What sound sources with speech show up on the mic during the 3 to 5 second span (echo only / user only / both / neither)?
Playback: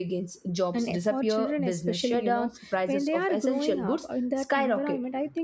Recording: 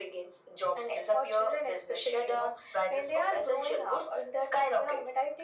echo only